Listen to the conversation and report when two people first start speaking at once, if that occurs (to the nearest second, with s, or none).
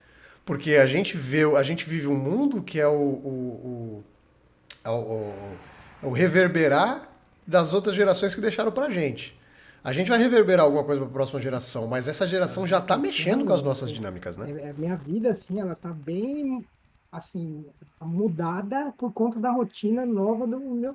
12 s